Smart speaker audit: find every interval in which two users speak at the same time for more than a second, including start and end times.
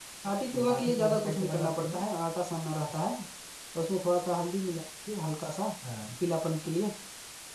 0.5-2.0

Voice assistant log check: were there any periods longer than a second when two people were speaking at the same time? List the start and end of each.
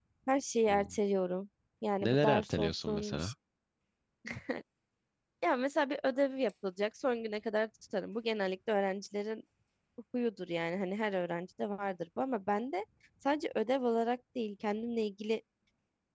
2.0-3.3

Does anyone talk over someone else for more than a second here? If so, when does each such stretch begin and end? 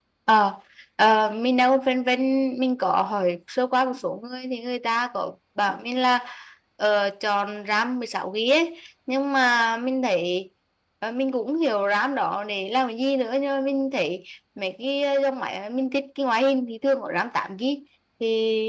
none

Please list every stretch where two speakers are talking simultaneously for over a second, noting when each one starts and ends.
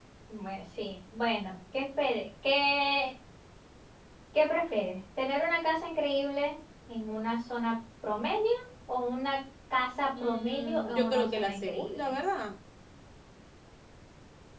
10.2-12.1

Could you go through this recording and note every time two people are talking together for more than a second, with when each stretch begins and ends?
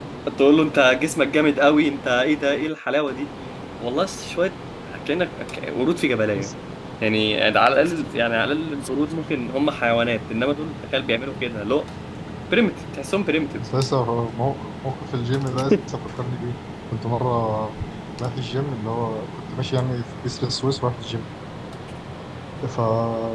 none

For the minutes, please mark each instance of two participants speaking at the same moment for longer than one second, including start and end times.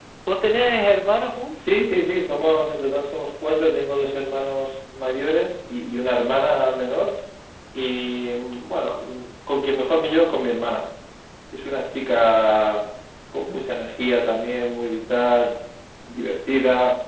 none

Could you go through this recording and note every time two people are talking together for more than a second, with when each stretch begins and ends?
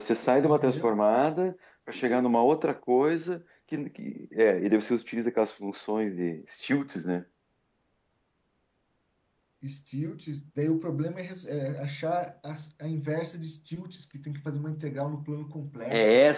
none

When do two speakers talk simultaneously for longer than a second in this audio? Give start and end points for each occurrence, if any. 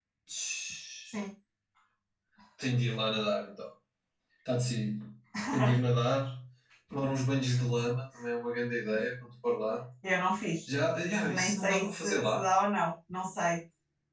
11.2-12.5

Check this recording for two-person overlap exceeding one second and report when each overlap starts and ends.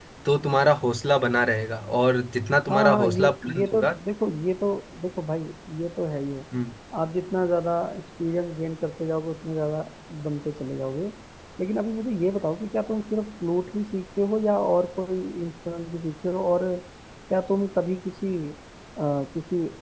2.7-3.9

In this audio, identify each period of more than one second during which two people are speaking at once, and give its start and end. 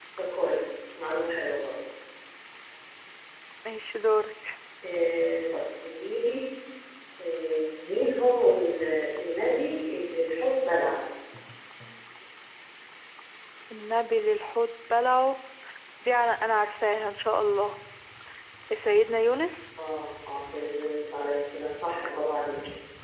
none

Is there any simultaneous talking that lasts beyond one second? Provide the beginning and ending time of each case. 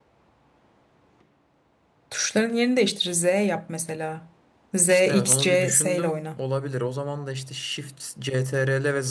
4.9-6.4

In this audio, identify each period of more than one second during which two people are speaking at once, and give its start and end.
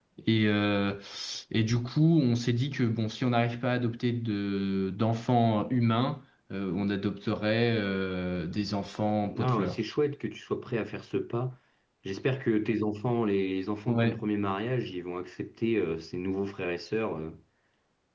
none

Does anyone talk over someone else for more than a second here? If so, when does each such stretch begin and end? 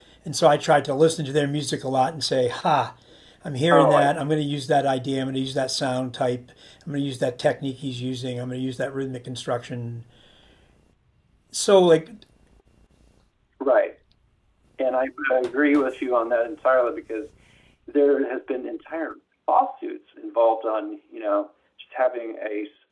none

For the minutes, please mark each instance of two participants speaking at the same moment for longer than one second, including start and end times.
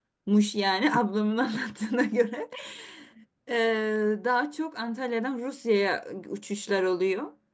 none

